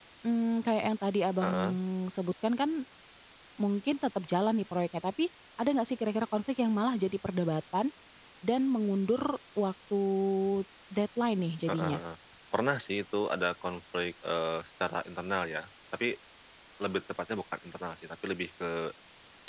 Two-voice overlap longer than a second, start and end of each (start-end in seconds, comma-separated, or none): none